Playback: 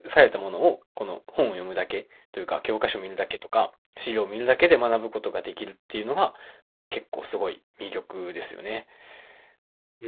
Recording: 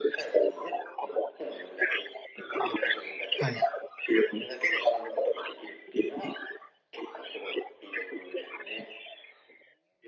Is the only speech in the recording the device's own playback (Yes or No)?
No